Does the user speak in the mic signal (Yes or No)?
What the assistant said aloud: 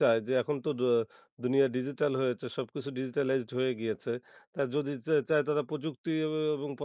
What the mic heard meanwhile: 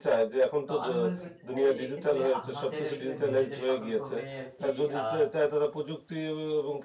Yes